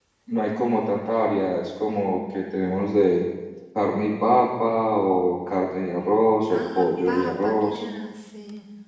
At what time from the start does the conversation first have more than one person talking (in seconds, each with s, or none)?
6.5 s